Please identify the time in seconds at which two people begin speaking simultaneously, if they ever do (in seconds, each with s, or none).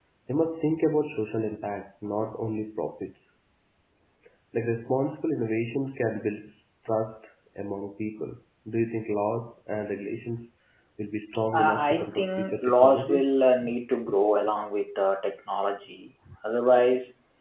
11.6 s